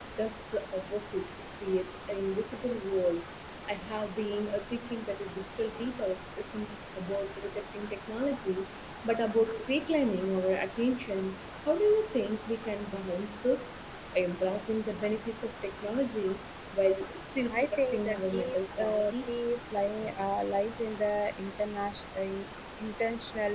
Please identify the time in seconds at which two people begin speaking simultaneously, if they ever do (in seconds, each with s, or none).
17.5 s